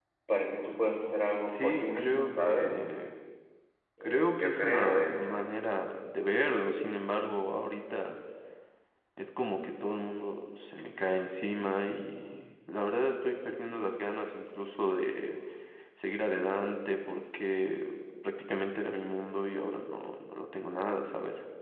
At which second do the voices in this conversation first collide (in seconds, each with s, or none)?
1.5 s